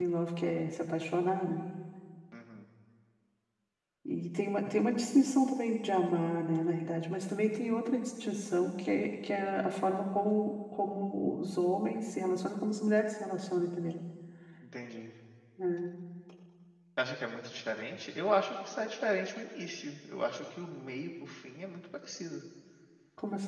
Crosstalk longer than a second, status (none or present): none